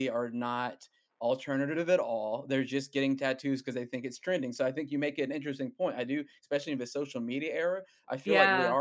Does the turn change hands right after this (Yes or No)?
No